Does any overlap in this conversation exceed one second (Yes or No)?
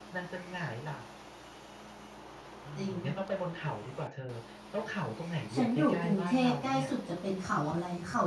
Yes